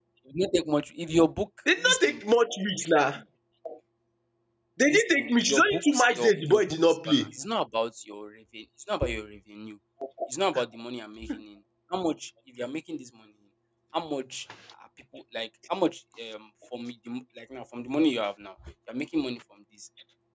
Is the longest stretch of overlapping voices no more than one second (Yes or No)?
No